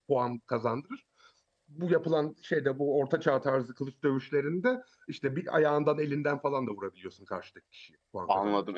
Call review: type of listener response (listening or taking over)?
taking over